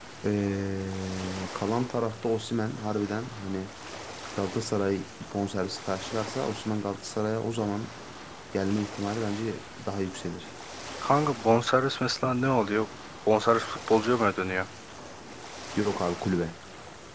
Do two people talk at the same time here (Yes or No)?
No